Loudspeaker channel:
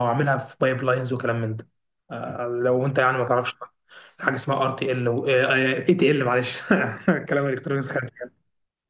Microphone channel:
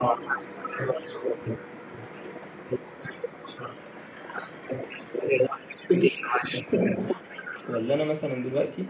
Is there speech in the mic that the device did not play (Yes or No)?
Yes